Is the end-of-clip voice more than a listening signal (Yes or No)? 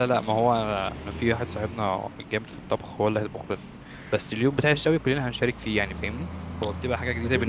Yes